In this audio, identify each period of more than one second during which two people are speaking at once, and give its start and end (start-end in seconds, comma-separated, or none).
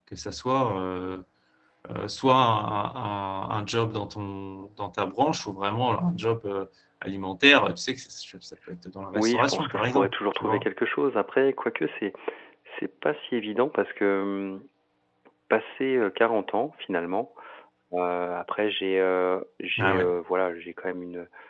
9.2-10.7